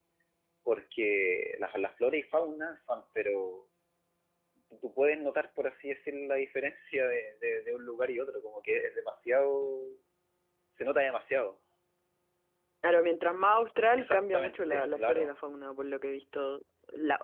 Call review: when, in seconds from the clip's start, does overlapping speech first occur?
14.0 s

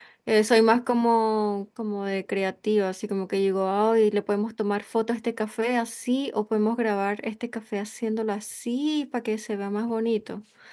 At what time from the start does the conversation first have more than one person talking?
none

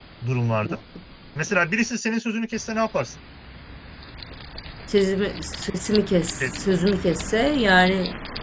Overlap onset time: none

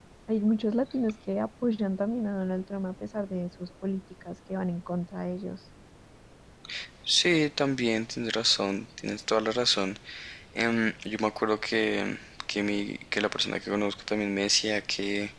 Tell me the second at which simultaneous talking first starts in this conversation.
none

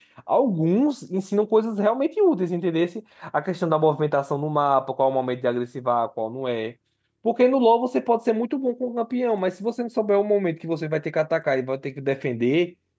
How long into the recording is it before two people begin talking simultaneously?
none

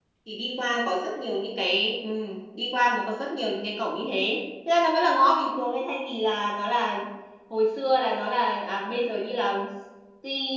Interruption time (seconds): none

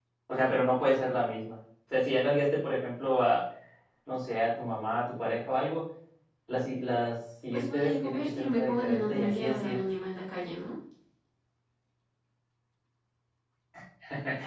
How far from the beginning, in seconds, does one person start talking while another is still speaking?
7.5 s

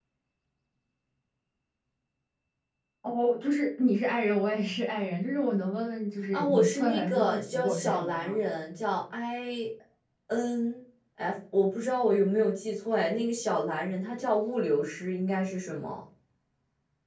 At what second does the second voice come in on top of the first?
6.3 s

